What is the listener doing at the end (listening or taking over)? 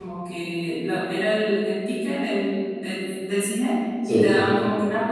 listening